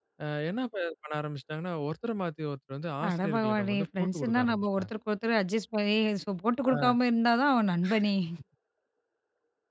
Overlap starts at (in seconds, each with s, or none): 3.1 s